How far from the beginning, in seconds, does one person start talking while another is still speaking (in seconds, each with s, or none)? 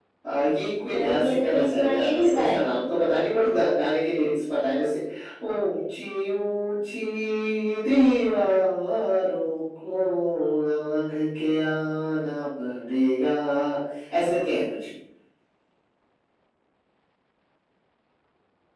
0.9 s